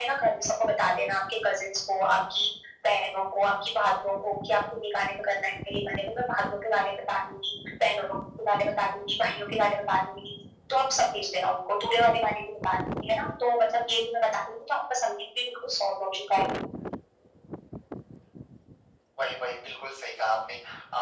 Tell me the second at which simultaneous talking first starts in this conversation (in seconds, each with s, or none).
none